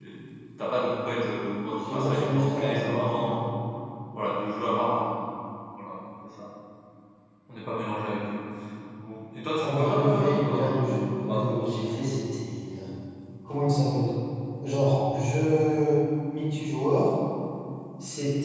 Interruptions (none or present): present